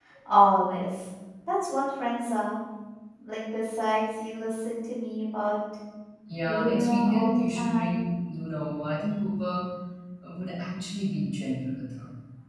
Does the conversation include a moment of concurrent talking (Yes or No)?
Yes